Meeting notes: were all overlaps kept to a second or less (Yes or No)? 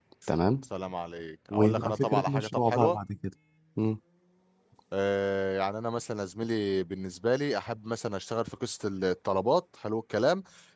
No